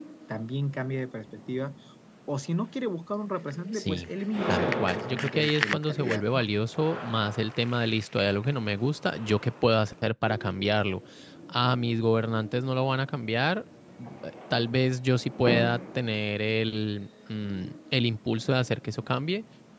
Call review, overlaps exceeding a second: present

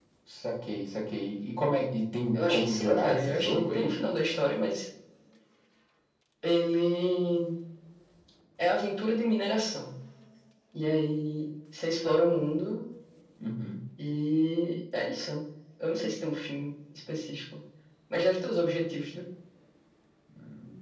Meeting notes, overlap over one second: present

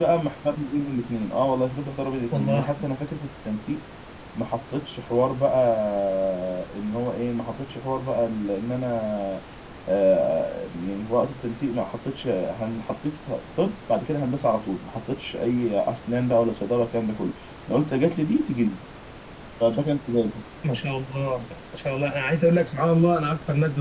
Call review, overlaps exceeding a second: none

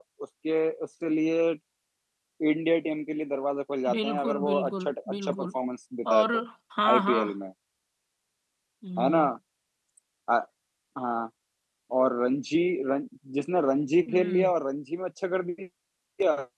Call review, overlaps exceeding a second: present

